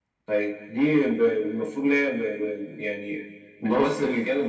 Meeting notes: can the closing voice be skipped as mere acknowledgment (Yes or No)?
Yes